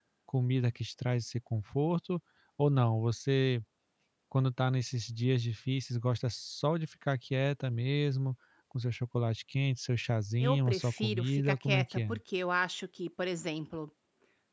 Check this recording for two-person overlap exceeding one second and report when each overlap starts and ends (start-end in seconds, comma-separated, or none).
10.4-12.2